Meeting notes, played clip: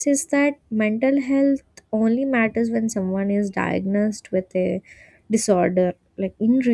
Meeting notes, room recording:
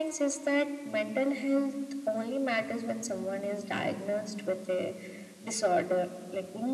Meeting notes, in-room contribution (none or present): none